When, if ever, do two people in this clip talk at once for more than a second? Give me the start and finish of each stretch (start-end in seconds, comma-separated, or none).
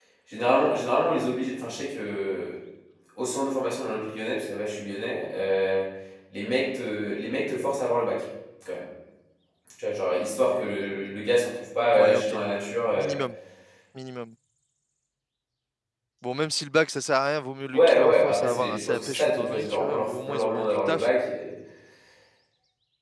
17.7-21.1